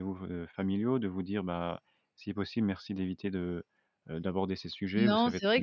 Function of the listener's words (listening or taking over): taking over